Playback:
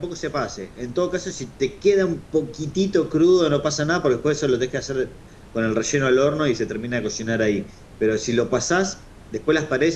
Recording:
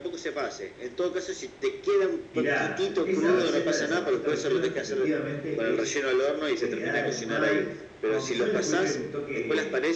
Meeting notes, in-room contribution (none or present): present